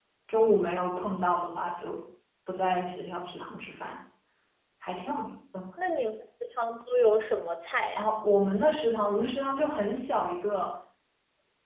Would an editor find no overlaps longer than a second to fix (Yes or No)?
Yes